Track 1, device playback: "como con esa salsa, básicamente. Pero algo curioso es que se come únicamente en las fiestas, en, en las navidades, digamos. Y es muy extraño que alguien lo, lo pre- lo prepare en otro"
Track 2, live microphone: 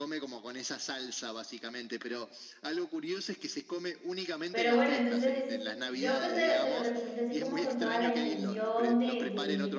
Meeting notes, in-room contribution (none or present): present